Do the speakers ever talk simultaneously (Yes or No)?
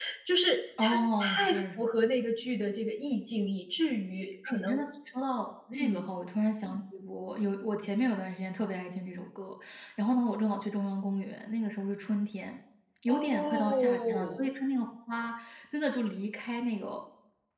Yes